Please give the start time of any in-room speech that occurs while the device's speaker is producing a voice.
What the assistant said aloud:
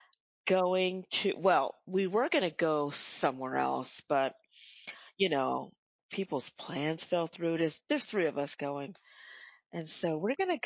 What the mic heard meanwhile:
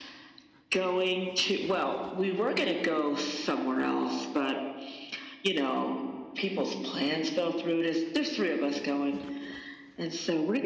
none

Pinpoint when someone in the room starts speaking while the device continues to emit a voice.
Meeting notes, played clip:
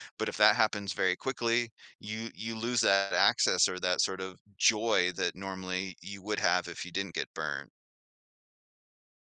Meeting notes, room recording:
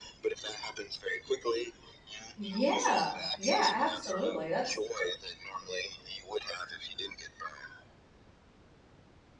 2 s

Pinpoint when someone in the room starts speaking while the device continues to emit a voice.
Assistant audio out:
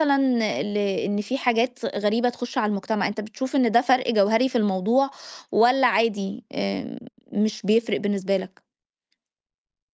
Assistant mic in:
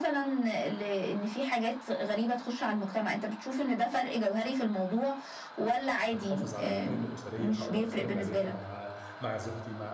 6 s

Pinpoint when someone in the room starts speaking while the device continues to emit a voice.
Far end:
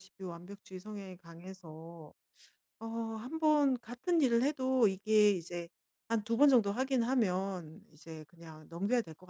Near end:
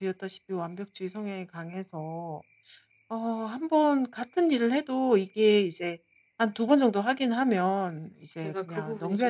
8 s

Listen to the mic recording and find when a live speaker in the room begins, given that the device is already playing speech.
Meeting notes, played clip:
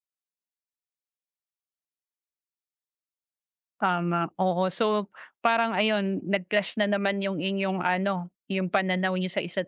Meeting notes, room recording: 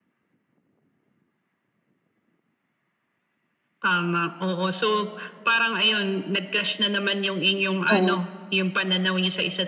8 s

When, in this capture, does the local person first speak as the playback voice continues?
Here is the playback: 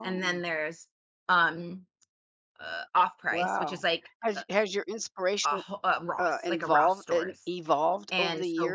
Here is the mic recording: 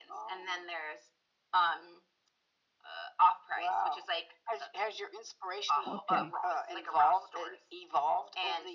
6 s

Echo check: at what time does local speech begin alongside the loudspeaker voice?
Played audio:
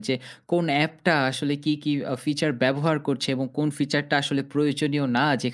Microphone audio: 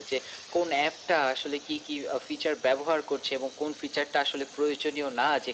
none

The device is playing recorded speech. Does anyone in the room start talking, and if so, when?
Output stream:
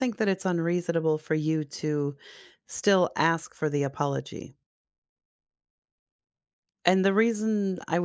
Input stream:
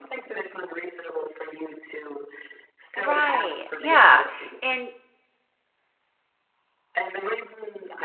3 s

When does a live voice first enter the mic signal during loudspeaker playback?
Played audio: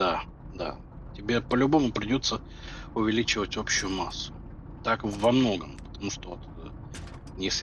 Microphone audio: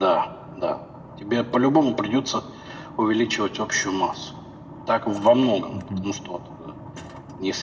6 s

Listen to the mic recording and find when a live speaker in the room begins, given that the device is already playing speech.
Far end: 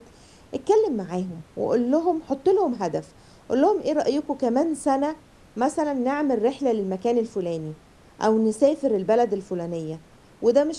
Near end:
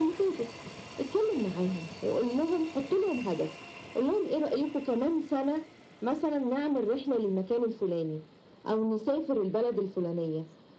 none

